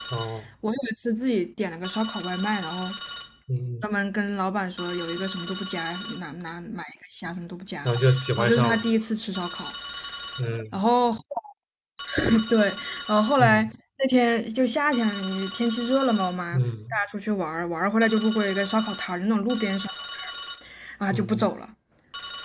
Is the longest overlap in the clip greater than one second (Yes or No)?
No